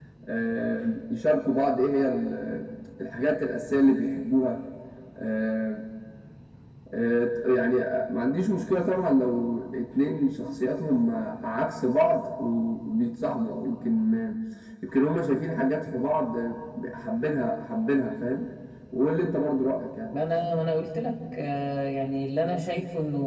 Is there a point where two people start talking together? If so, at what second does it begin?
none

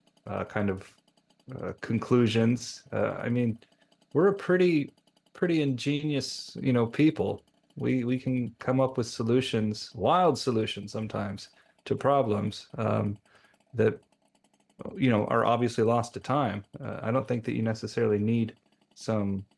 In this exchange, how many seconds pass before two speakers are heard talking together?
none

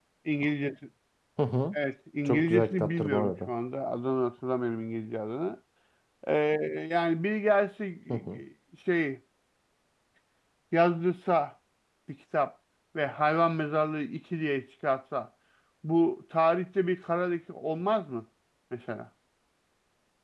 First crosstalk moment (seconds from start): 2.2 s

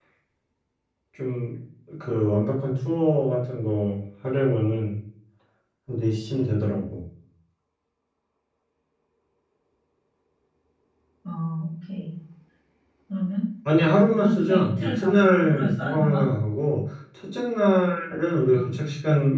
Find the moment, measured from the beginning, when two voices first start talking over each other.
14.2 s

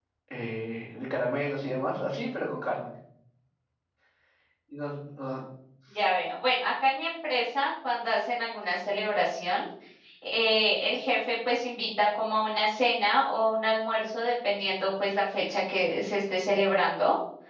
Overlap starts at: none

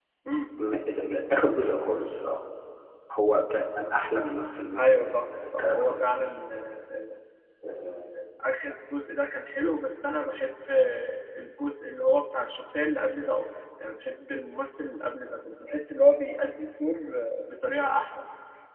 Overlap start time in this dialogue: 4.8 s

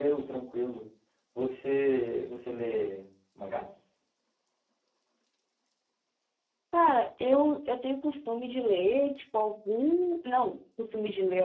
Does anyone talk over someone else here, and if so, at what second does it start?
none

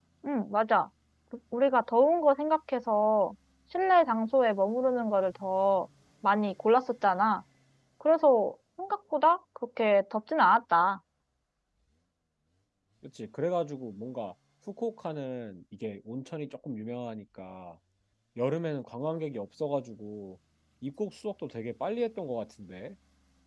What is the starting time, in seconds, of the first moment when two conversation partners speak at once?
none

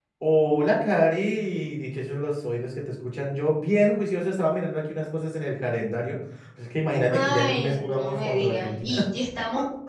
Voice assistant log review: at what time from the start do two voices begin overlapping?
7.1 s

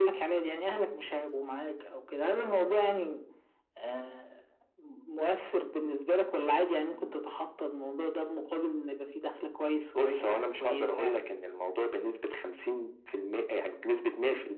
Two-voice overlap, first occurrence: 10.0 s

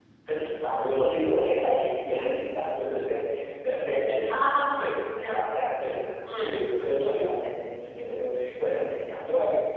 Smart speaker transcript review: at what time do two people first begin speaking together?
4.8 s

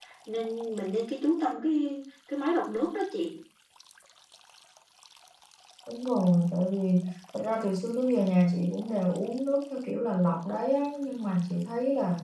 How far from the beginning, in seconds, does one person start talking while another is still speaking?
none

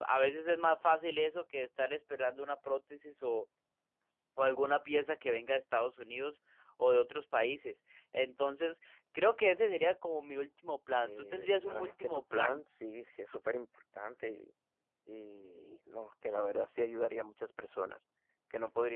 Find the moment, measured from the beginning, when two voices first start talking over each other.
10.9 s

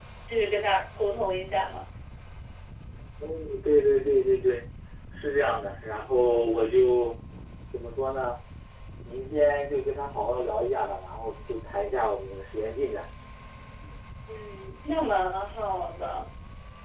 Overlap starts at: none

